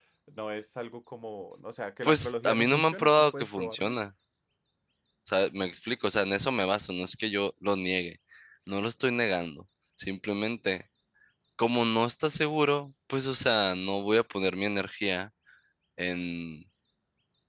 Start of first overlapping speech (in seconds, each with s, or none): 2.0 s